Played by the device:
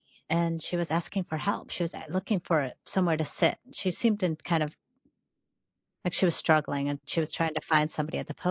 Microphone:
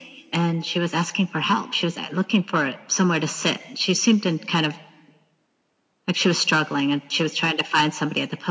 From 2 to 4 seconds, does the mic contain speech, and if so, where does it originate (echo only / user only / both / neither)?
echo only